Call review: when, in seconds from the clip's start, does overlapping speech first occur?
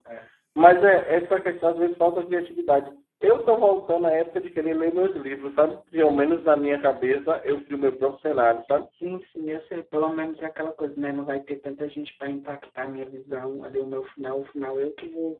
none

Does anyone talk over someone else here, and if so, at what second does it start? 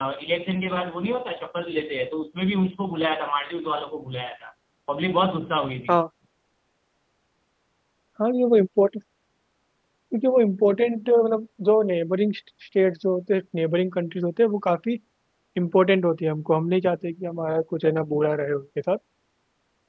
none

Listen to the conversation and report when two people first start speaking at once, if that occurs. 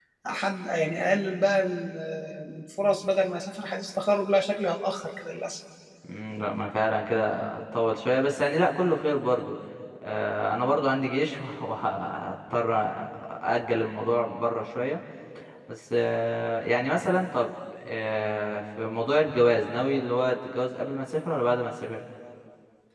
none

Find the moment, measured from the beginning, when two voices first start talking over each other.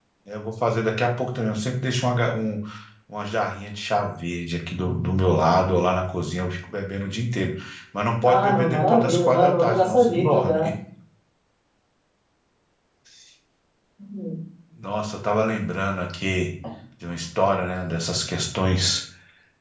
8.2 s

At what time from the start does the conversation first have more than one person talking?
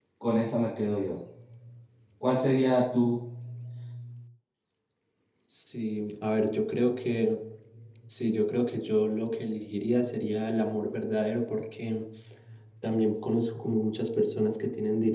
none

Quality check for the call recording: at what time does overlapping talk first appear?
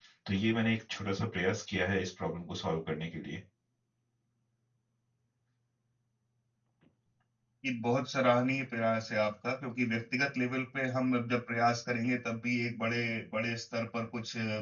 none

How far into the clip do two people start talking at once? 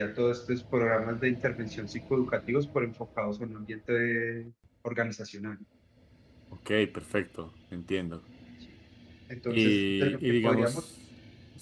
9.5 s

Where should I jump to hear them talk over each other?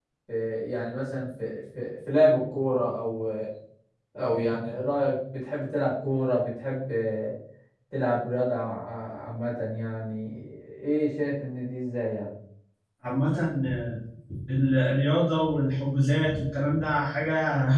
none

